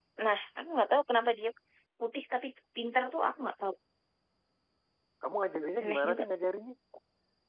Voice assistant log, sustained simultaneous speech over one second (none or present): none